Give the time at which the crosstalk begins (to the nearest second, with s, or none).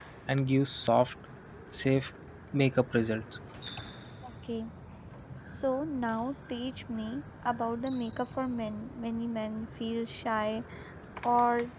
none